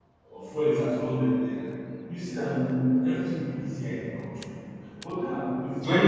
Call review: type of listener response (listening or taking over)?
listening